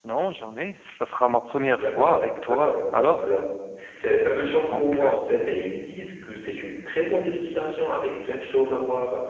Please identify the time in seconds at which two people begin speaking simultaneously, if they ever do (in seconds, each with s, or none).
1.6 s